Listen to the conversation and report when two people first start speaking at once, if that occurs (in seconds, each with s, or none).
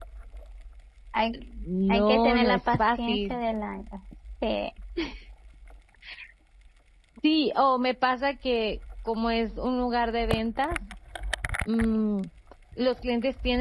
1.9 s